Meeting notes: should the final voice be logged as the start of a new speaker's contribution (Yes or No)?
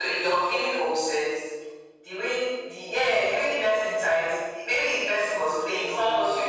No